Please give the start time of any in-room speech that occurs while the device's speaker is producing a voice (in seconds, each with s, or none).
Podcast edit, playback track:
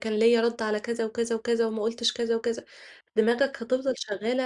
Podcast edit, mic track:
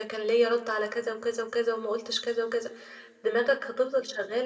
none